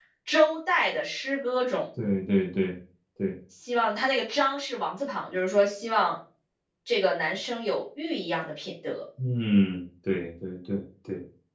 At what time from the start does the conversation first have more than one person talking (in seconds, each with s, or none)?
none